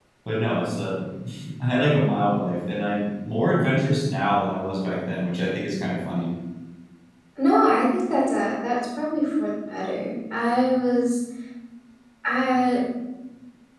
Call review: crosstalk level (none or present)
none